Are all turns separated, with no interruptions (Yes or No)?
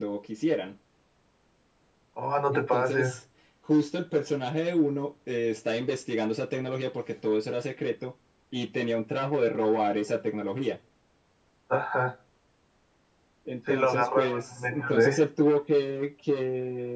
No